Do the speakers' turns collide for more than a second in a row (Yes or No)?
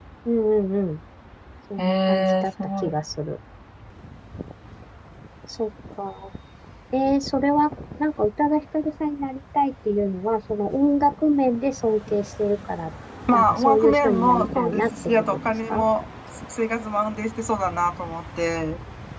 Yes